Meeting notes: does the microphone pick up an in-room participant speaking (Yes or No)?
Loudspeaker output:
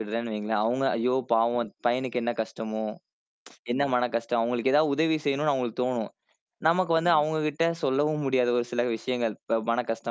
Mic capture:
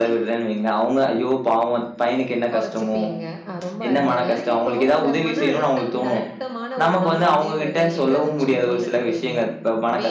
Yes